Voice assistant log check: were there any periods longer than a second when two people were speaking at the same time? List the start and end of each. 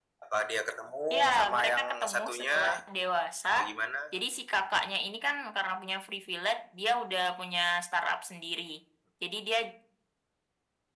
1.1-2.6

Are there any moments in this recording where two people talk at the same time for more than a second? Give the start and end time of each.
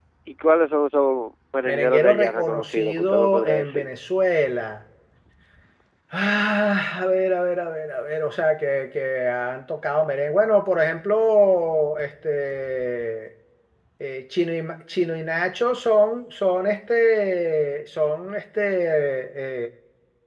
1.7-3.9

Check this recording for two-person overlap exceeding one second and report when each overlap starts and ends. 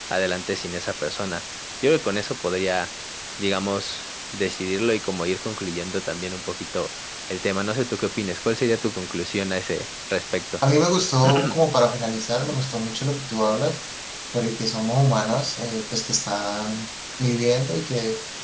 none

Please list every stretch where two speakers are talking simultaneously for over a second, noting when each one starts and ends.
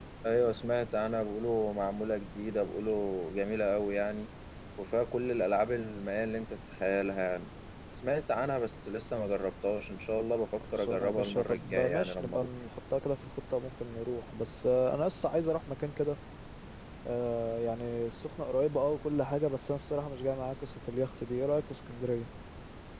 10.7-12.5

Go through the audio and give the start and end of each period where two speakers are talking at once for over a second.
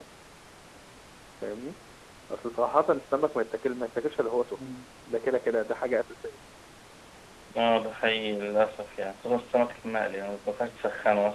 none

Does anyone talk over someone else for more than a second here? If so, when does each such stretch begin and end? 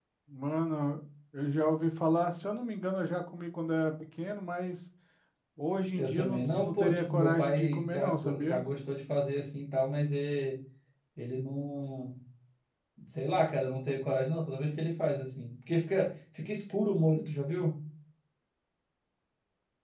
6.0-8.6

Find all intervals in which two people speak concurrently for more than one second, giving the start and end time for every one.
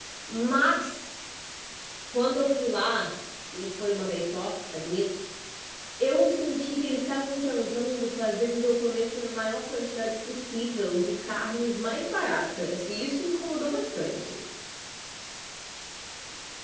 none

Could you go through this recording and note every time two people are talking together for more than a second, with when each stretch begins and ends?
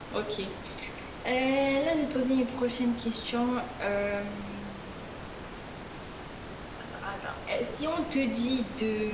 none

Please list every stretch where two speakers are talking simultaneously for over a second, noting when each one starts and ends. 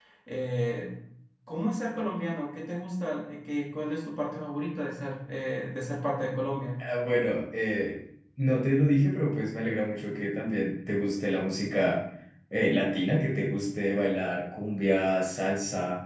none

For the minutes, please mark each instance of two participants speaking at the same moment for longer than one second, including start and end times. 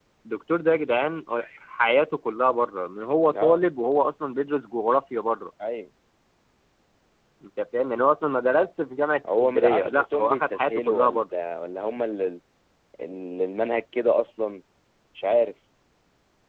9.4-11.2

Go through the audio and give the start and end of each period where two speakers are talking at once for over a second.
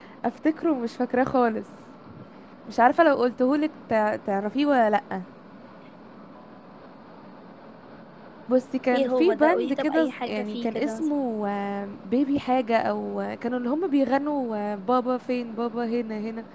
8.9-11.1

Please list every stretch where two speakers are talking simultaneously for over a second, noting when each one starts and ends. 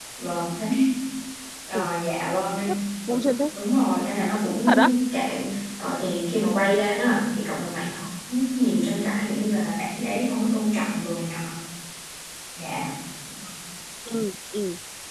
none

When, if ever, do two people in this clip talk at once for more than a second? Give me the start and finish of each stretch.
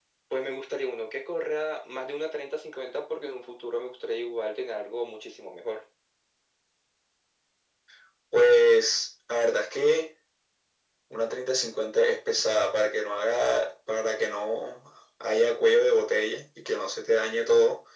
none

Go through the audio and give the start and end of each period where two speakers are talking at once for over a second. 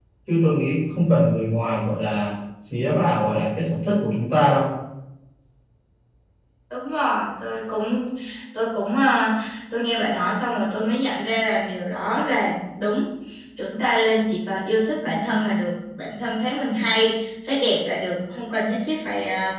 none

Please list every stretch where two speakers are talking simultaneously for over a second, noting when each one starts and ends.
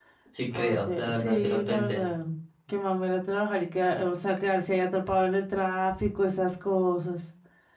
0.5-2.0

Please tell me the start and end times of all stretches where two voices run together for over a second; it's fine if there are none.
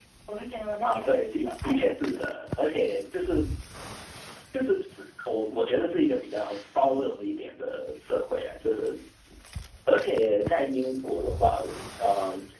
0.8-2.3

